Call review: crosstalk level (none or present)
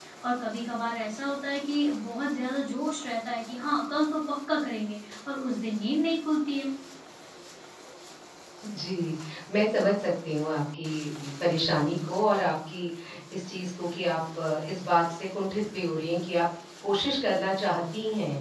none